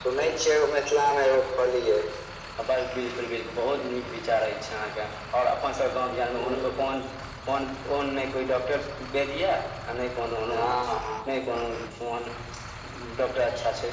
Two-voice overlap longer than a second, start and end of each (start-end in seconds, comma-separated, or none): none